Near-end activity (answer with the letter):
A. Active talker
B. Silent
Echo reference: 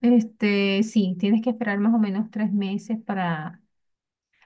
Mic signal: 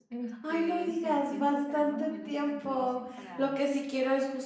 A